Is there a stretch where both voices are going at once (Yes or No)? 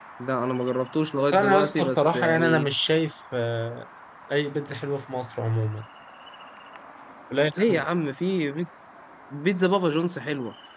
Yes